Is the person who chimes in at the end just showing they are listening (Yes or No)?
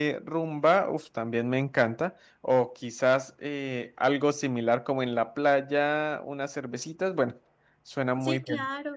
No